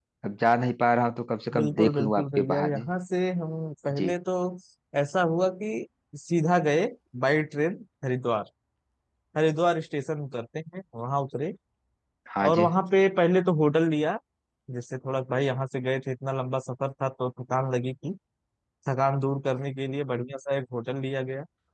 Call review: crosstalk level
present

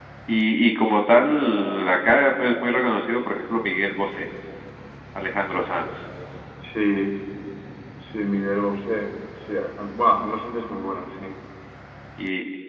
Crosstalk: none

